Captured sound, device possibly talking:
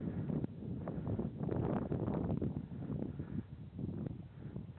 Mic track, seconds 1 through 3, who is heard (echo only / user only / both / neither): neither